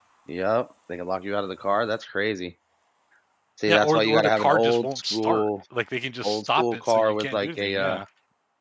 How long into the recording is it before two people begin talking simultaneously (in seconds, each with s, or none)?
3.7 s